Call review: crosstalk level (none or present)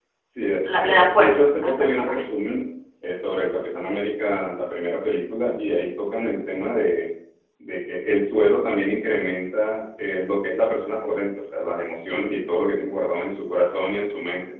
present